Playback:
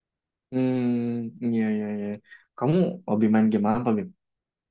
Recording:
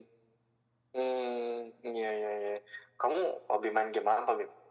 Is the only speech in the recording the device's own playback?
Yes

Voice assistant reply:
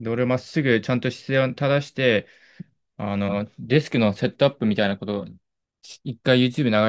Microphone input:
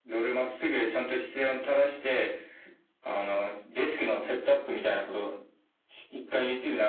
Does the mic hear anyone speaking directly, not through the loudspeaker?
No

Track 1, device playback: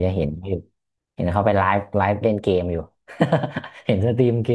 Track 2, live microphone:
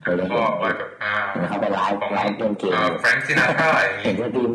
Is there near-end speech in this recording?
Yes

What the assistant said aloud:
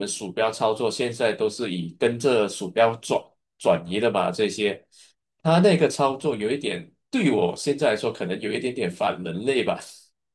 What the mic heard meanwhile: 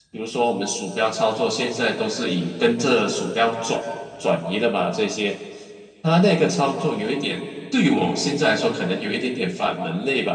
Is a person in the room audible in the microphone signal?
No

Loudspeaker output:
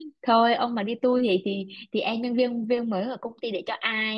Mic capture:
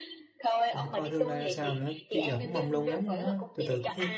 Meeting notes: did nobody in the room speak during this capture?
No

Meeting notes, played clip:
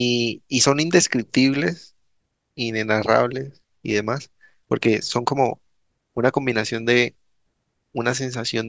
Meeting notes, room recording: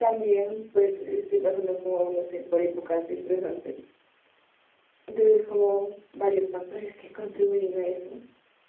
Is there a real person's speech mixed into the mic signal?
Yes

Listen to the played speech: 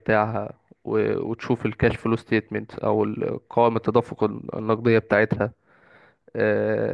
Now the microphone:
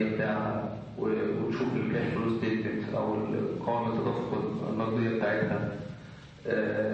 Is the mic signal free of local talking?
Yes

